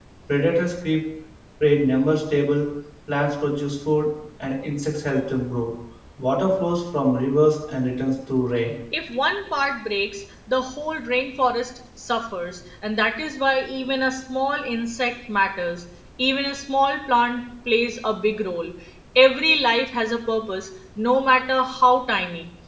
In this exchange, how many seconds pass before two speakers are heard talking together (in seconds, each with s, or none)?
none